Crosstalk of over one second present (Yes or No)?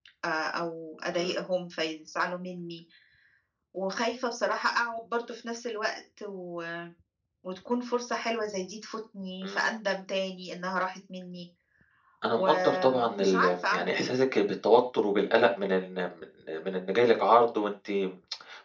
Yes